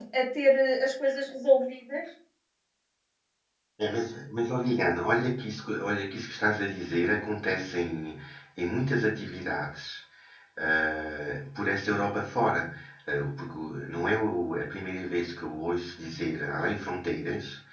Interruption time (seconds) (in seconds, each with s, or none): none